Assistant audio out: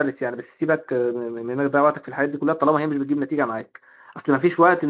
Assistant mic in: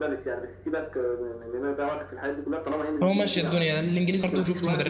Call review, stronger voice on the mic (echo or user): user